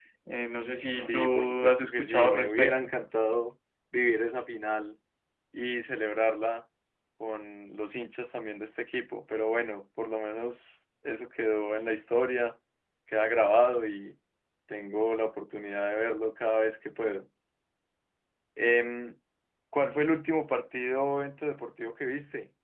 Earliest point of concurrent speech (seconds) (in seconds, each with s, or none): 0.9 s